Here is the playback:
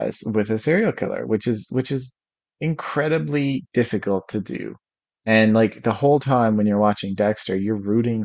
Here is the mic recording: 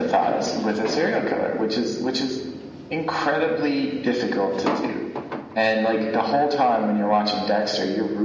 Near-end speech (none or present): none